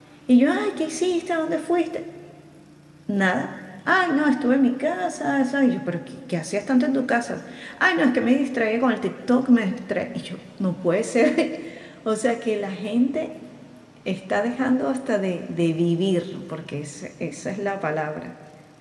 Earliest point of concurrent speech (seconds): none

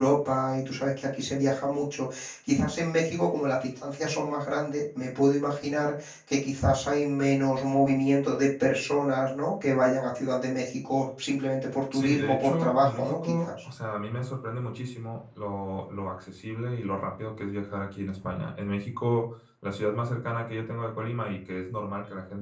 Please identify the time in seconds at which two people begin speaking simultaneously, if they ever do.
11.9 s

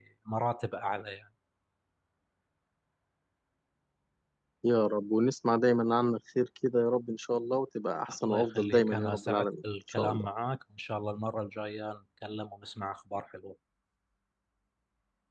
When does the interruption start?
8.1 s

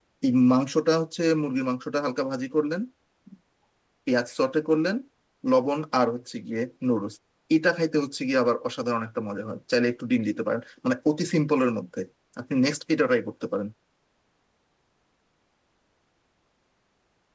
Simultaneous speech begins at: none

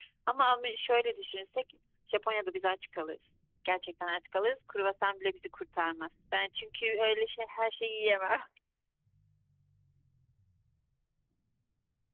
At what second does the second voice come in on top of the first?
none

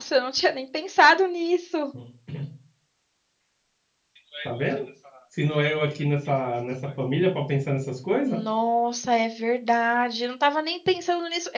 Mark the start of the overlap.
none

